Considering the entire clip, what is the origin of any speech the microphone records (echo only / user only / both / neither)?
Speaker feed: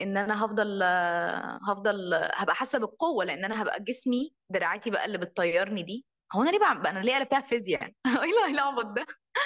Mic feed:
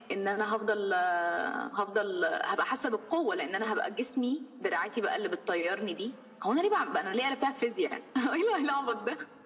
echo only